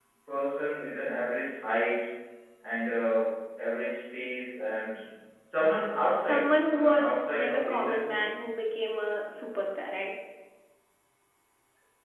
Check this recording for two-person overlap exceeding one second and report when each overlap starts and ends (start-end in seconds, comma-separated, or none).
6.3-8.3